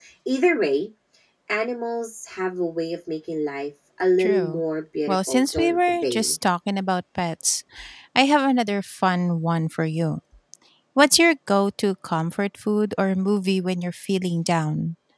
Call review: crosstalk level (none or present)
present